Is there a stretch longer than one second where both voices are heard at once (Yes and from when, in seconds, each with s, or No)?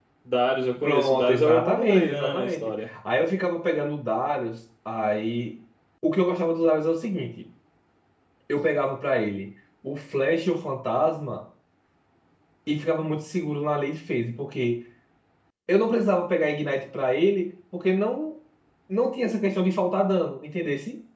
Yes, from 0.8 s